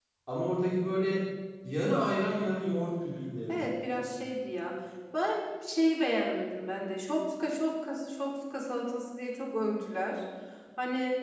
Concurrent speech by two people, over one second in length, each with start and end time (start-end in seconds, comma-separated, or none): none